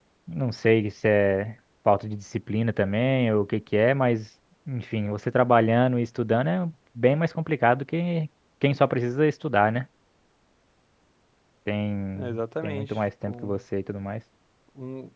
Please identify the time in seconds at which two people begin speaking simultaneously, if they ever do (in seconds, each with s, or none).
12.2 s